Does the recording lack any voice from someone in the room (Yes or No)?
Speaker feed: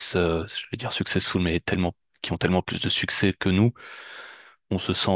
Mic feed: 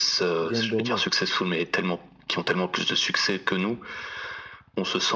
No